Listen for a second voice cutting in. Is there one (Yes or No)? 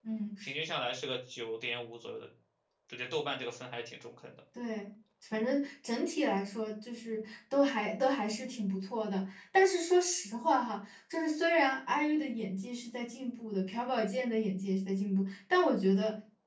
No